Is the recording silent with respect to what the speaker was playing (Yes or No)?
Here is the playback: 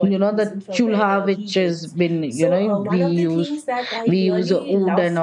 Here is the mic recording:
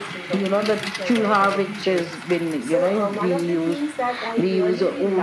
No